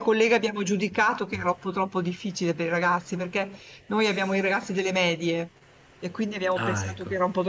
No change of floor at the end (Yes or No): Yes